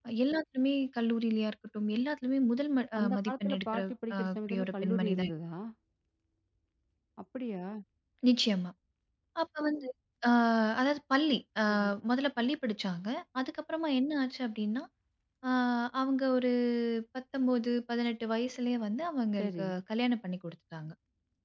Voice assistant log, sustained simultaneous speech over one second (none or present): present